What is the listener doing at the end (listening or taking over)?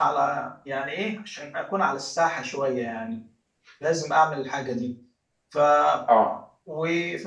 listening